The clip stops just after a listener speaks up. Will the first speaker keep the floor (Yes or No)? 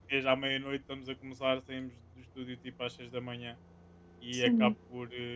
Yes